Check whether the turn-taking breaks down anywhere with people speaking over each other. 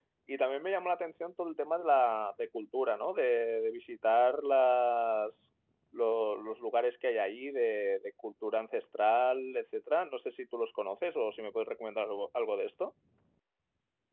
No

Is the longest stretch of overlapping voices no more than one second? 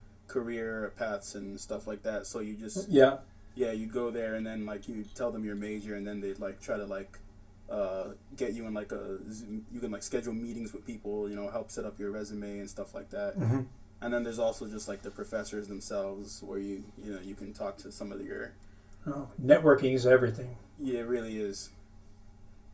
Yes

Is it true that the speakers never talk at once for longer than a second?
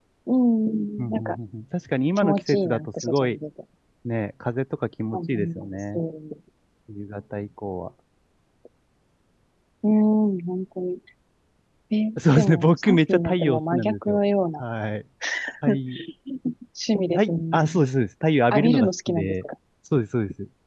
No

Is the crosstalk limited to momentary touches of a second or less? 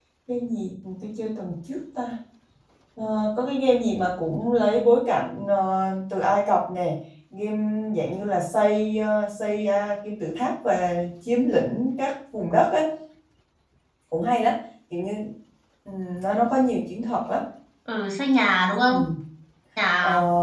Yes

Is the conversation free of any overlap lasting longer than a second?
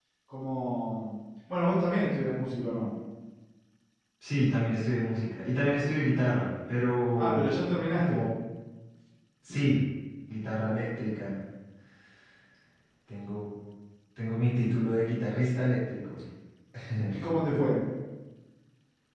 Yes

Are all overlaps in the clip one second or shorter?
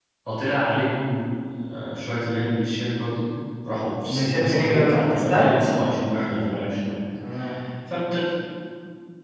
No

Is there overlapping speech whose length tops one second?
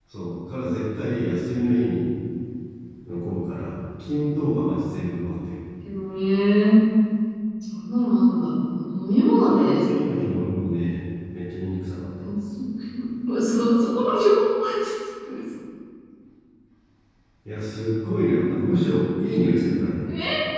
No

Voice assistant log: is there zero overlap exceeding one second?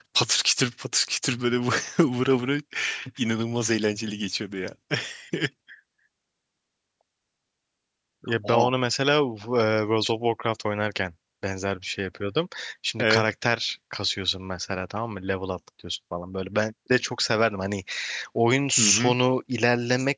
Yes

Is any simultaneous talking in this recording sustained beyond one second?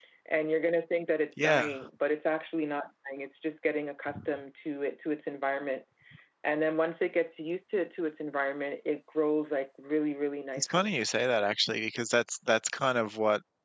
No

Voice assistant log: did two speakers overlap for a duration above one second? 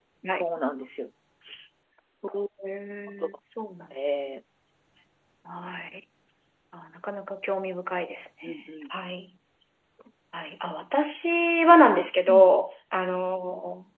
No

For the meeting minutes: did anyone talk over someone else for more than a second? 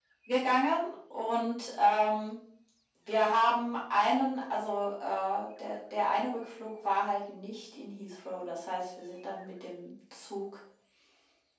No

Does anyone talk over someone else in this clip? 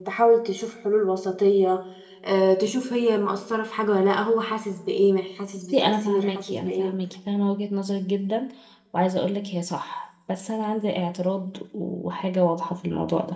Yes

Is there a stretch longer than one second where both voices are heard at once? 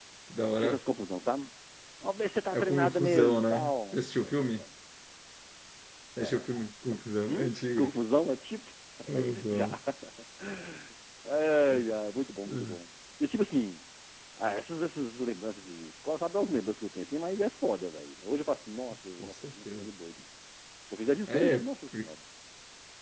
Yes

